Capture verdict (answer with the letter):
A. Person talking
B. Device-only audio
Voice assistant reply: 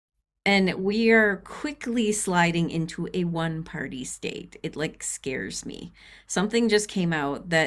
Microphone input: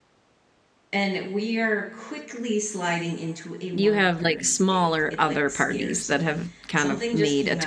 A